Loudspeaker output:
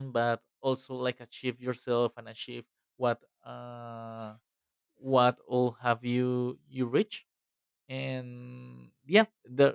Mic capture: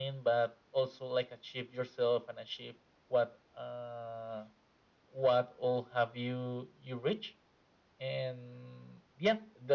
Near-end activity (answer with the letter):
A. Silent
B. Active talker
A